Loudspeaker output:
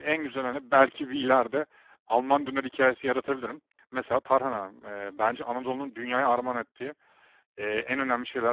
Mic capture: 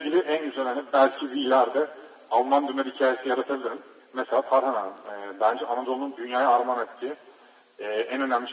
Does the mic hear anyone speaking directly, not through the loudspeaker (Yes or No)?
No